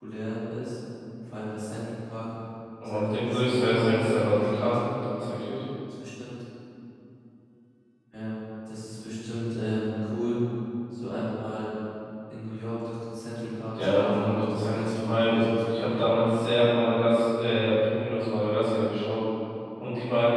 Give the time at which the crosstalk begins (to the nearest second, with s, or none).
3 s